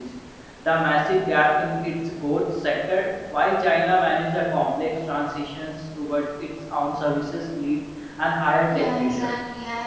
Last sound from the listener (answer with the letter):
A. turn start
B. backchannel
A